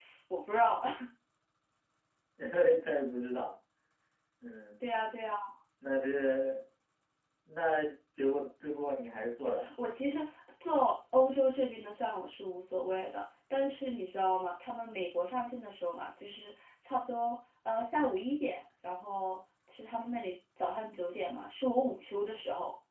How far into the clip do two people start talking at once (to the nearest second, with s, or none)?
none